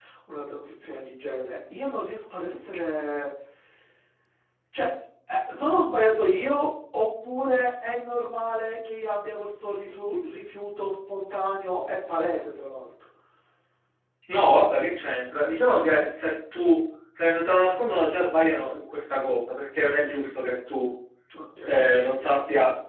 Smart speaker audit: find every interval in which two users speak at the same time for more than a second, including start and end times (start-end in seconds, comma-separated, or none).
none